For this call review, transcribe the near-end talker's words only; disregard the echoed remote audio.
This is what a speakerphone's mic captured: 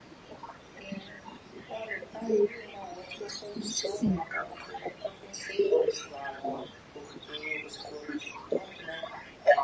sim.

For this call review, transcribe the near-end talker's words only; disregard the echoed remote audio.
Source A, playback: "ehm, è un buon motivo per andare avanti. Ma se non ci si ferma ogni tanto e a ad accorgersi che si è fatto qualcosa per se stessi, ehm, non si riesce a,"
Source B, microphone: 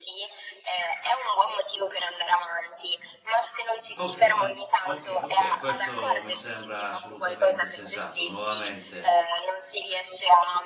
Okay, okay, okay, questo mi sembra assolutamente sensato. Nuovamente

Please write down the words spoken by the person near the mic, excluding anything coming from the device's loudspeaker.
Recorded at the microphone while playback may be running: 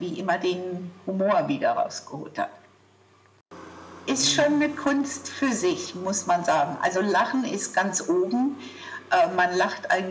Mhm.

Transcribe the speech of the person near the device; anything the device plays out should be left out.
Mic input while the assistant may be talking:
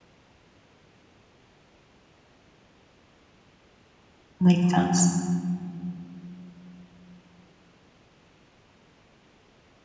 make sense.

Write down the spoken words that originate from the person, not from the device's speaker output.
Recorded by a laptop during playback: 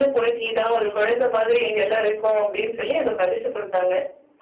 none

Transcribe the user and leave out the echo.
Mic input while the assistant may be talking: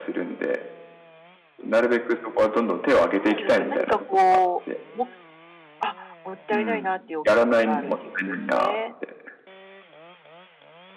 どうなんですか？何かこう、あ、もったいないなっていうお気持ちがあるっていうことですね。

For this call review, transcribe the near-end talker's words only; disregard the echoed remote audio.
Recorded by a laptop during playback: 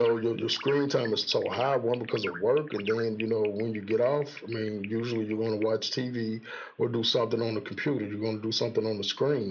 none

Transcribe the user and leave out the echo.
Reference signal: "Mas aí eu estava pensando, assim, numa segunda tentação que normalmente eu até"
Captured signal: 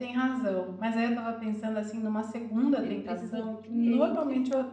Ele precisa de clientes,

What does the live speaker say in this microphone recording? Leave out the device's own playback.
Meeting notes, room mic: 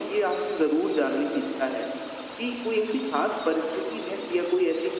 none

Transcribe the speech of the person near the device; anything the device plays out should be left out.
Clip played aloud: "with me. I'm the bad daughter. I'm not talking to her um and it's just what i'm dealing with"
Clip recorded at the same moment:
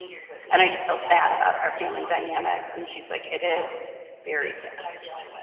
and I just feel sad about our family dynamics. And she's like, it is, it's very sad.

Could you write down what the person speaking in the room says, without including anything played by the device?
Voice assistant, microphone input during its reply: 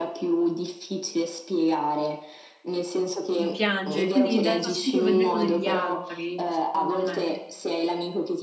di piangere, quindi dà fastidio vederlo negli altri, secondo me.

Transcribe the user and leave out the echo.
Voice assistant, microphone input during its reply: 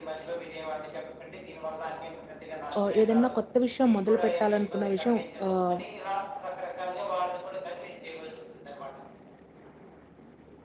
ఆహ్, ఏదన్నా కొత్త విషయం మొదలుపెట్టాలనుకున్న విషయం ఆహ్,

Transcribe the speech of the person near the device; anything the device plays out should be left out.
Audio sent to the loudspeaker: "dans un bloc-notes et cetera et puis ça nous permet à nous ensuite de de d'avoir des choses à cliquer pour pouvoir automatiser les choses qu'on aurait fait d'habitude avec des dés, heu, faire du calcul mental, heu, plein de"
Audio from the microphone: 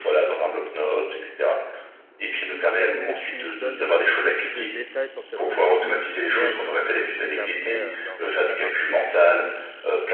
il faut que tu donnes le plus possible de détails pour que ça soit le plus réaliste possible après, heu, lors de la partie?

